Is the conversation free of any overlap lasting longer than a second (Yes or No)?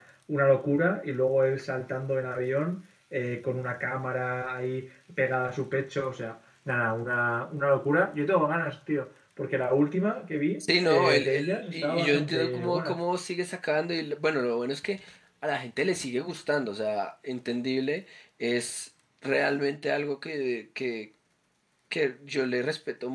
No